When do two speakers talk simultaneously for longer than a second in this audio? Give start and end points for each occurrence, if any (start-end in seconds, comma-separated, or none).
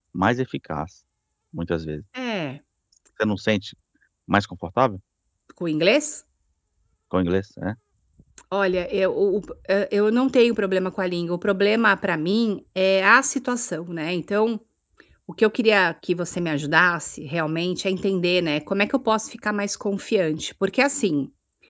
none